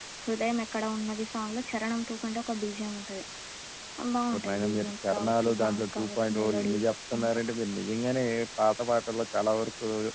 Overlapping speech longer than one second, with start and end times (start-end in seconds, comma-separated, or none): 4.3-6.8